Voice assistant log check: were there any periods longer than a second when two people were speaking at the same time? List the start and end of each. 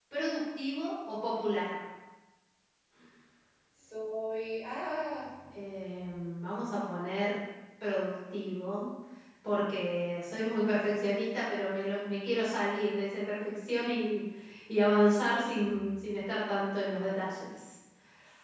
none

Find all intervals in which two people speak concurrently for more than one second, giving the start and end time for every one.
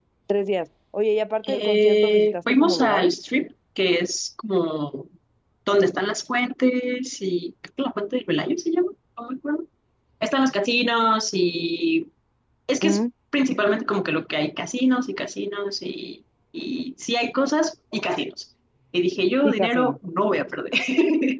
1.5-3.1

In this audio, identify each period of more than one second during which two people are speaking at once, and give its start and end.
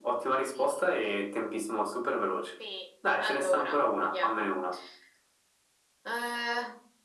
3.2-4.5

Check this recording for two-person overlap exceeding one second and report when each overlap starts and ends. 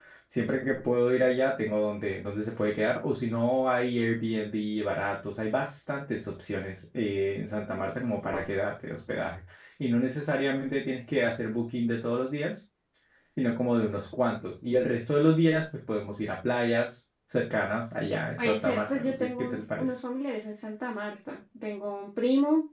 18.4-19.9

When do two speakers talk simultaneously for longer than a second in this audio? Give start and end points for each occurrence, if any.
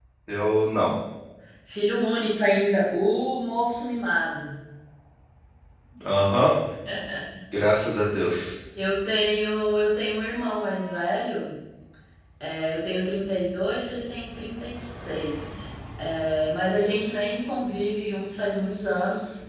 none

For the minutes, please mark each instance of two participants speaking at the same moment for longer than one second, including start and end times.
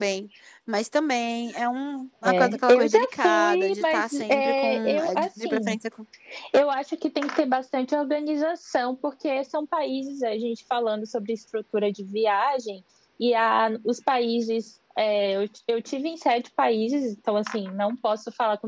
2.2-5.8

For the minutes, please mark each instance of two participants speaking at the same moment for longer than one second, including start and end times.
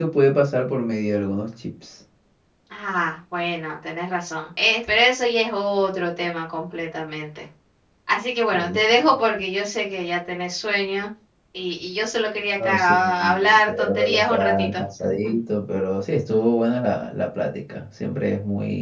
12.6-14.8

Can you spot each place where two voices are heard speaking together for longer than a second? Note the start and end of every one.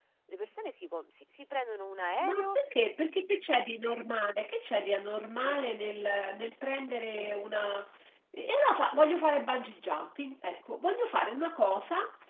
none

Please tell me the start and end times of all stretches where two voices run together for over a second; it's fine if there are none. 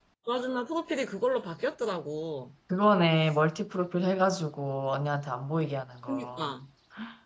none

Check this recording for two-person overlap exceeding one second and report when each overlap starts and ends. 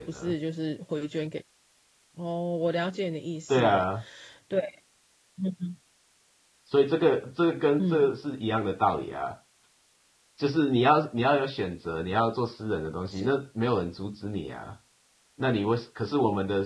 none

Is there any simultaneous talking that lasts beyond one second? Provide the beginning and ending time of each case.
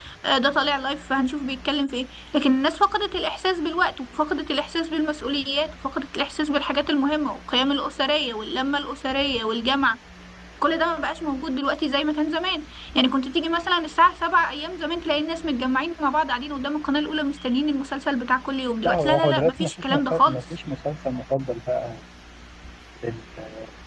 18.8-20.4

